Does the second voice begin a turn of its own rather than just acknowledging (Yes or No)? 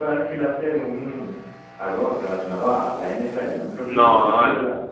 Yes